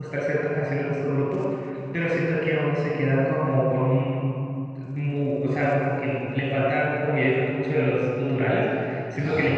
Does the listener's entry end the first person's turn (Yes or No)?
No